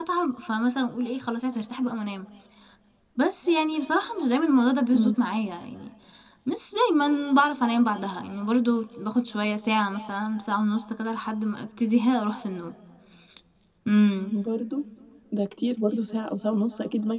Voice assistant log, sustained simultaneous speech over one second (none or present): none